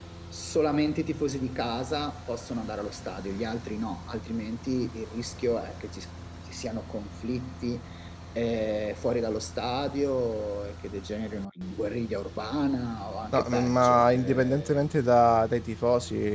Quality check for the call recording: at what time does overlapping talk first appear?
13.2 s

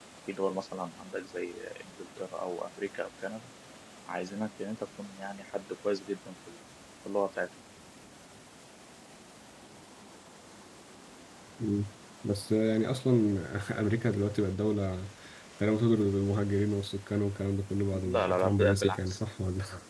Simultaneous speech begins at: 17.9 s

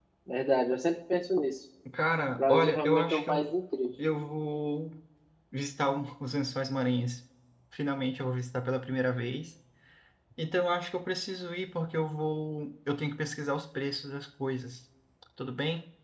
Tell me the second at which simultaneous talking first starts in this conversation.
2.3 s

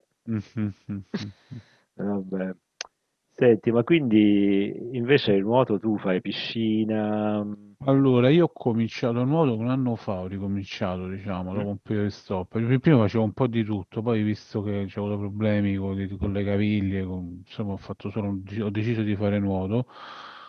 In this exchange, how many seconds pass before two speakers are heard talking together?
none

